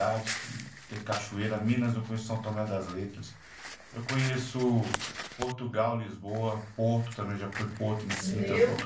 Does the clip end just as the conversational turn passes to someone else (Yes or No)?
Yes